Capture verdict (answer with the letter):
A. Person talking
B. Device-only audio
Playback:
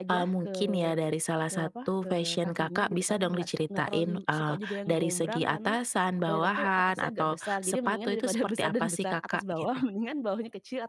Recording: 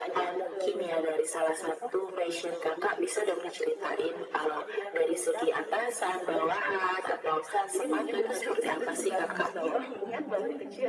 A